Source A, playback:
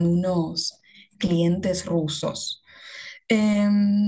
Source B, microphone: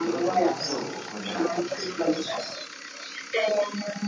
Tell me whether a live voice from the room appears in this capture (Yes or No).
Yes